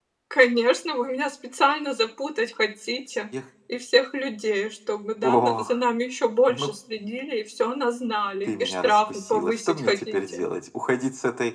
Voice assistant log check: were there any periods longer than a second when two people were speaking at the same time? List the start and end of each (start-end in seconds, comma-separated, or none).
8.5-10.4